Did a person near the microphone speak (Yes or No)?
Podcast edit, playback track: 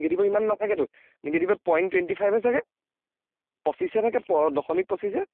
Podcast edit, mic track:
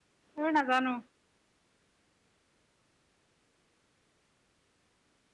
Yes